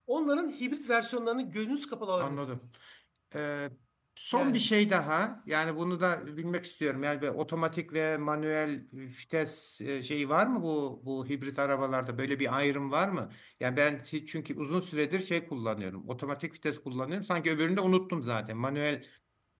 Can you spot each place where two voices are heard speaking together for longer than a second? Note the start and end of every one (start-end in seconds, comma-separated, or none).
none